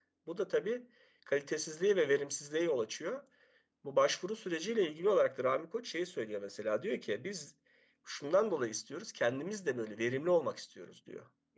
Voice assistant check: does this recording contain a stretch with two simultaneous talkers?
No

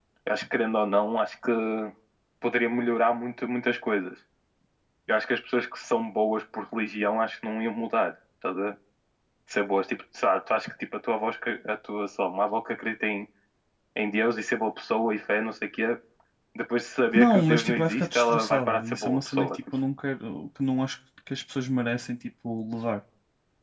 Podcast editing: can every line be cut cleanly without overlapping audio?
No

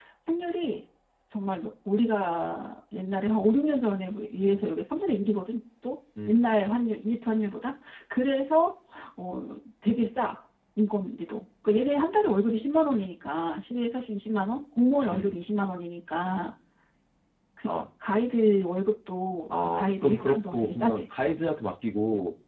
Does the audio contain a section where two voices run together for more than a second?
Yes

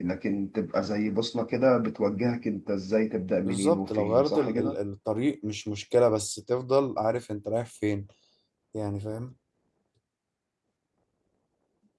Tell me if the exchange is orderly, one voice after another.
No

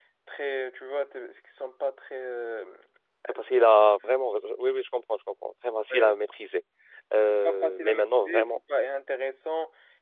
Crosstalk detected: Yes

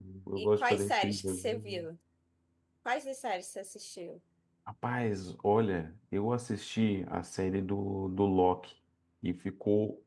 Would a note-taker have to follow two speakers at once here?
Yes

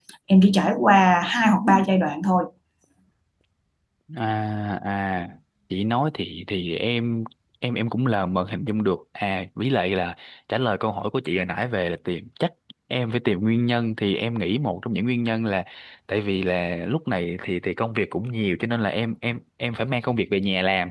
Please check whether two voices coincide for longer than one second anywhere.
No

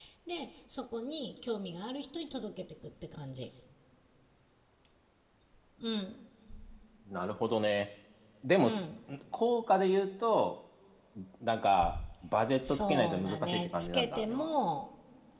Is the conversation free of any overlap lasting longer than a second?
No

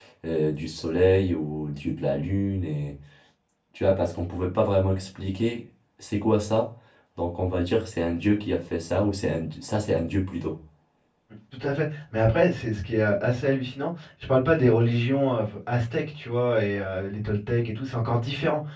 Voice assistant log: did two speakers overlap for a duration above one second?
No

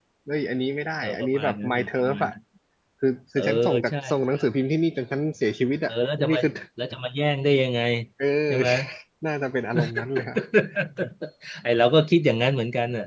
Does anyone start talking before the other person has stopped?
Yes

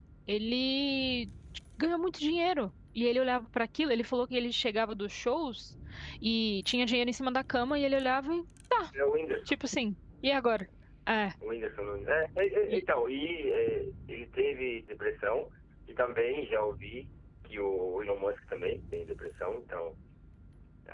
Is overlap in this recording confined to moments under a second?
Yes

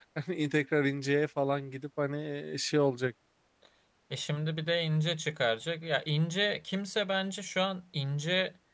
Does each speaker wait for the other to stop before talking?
Yes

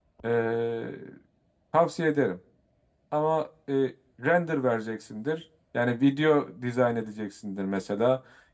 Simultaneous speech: No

